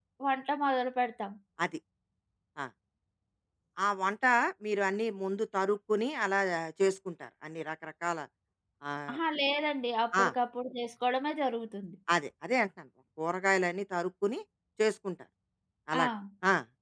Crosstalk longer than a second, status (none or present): none